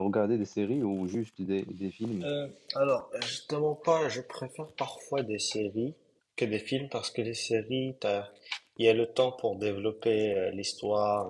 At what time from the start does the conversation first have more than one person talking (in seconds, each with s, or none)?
none